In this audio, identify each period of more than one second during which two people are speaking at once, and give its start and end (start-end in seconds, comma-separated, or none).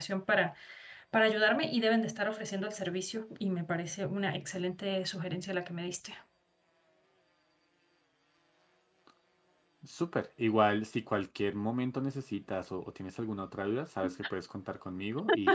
none